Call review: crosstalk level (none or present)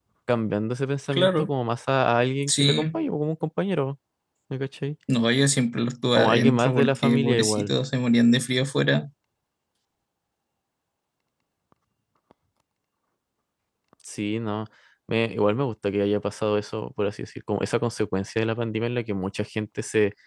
present